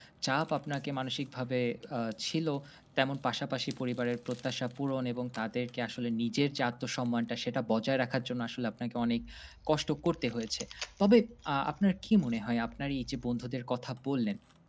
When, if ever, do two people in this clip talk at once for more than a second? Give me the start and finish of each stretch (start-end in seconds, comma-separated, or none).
none